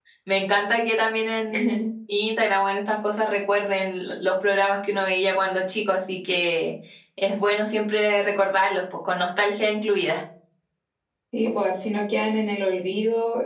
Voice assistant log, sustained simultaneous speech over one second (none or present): none